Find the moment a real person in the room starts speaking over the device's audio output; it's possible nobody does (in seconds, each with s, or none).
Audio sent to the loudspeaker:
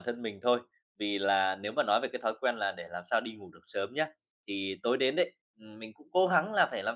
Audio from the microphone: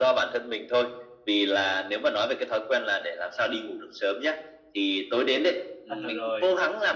5.9 s